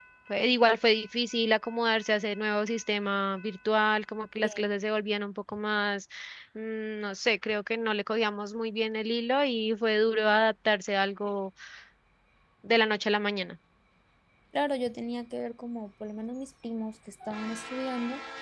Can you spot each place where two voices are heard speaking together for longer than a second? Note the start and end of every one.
none

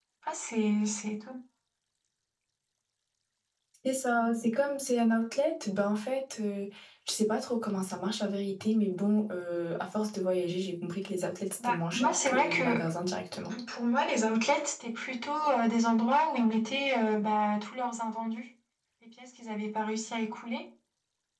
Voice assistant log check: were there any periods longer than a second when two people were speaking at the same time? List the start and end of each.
11.6-12.8

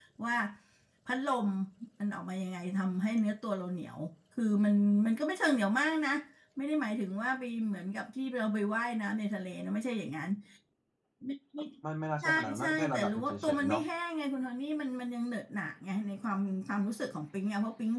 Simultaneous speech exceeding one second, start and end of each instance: 12.2-13.8

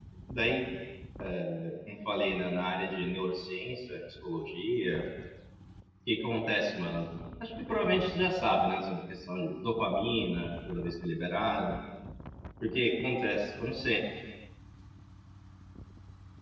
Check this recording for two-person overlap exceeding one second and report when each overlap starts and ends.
none

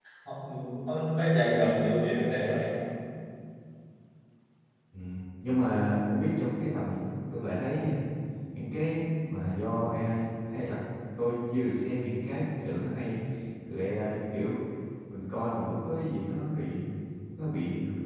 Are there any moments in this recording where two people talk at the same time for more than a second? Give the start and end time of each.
none

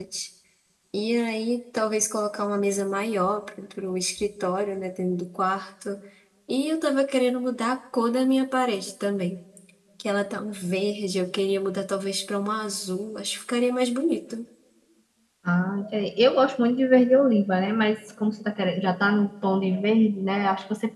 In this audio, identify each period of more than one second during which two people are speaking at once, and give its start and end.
none

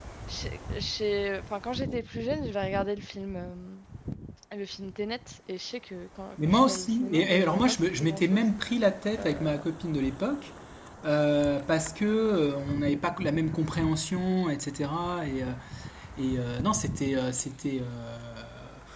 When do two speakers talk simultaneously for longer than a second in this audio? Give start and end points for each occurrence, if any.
6.5-8.4

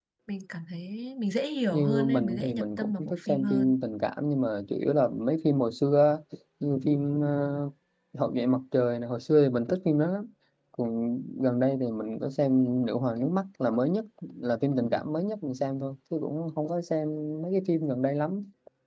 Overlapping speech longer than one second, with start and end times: 1.7-3.8

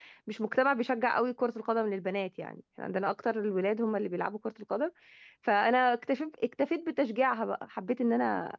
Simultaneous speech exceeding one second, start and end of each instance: none

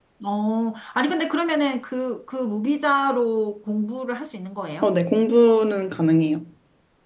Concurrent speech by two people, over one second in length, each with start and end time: none

